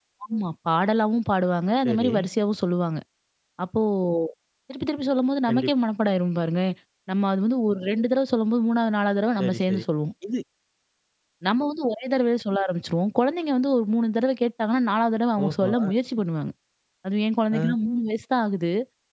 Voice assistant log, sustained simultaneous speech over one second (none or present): none